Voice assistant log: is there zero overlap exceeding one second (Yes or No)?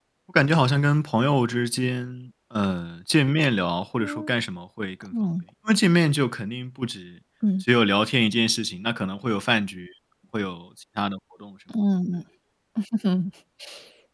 Yes